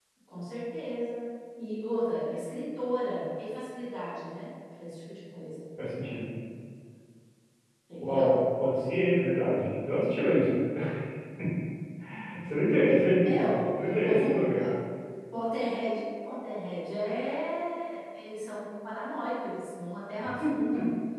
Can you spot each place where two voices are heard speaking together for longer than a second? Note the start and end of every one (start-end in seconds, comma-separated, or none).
13.2-14.7